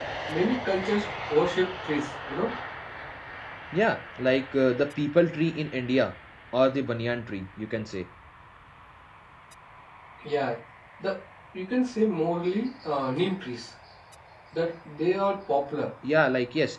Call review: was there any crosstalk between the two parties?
No

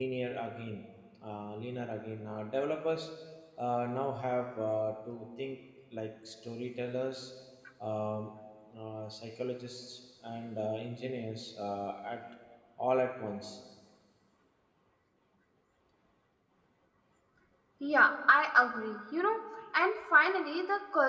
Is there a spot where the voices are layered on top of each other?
No

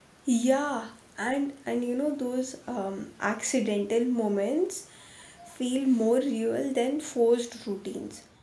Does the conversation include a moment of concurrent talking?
No

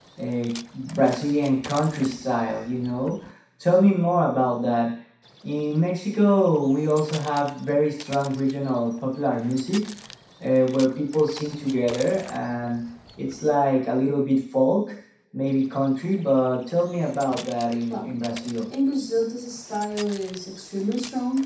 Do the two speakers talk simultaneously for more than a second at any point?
No

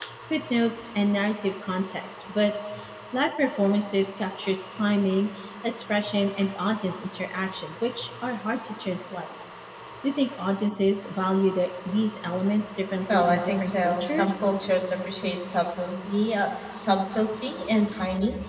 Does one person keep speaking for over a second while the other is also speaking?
Yes, from 13.1 s

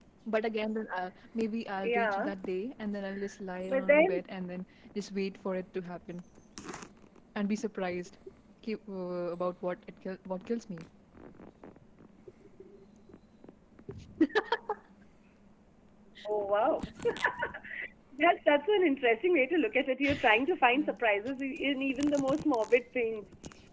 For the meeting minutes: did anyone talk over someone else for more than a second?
No

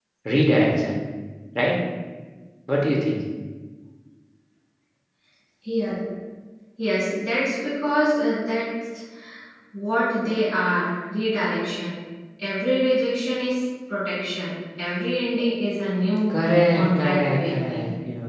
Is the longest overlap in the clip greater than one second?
Yes, from 16.3 s

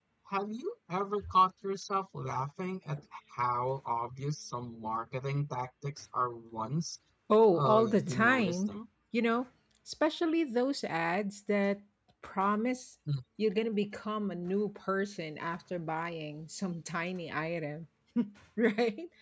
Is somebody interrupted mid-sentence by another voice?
Yes, from 7.6 s

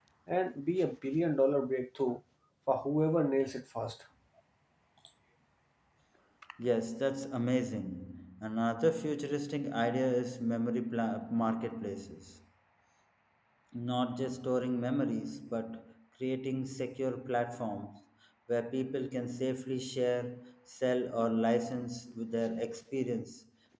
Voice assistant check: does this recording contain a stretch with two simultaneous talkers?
No

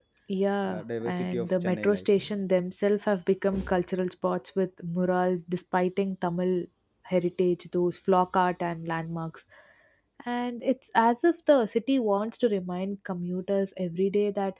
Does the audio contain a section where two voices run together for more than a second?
Yes, from 0.6 s

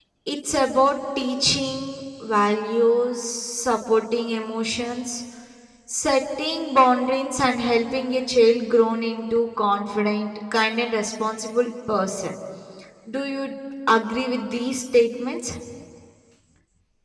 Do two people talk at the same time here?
No

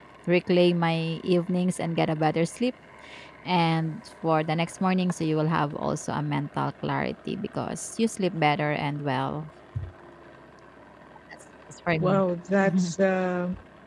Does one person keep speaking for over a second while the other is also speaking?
No

